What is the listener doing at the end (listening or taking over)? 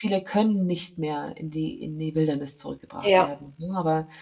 listening